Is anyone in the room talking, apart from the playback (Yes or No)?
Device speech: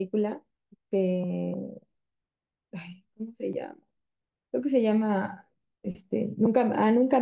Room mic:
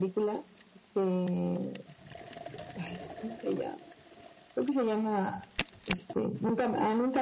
No